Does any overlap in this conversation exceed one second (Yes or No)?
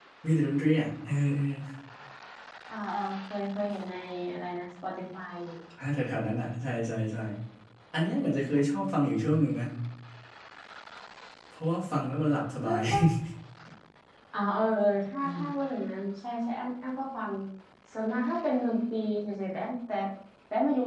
No